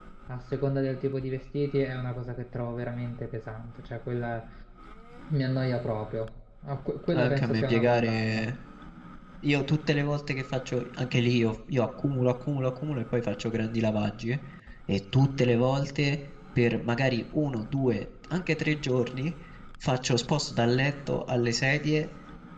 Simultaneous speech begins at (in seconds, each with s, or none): 7.1 s